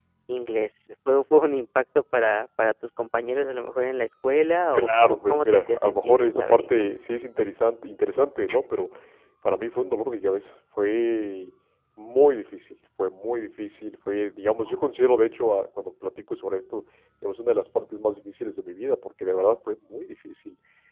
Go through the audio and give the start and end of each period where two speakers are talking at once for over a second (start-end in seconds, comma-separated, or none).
4.8-6.8